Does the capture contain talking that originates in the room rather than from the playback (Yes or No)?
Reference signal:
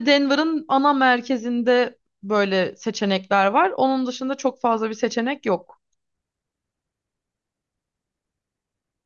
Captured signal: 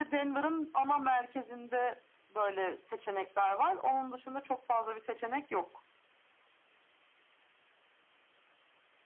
No